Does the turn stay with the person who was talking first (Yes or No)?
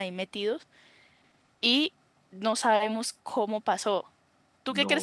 No